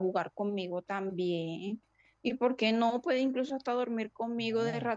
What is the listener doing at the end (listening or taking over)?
taking over